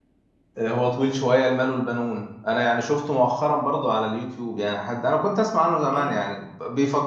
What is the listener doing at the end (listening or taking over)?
listening